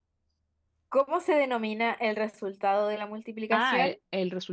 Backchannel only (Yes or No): No